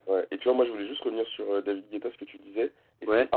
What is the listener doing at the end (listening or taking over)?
listening